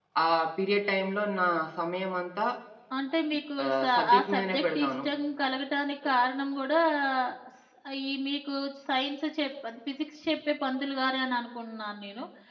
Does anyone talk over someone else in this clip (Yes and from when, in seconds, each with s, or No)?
Yes, from 3.6 s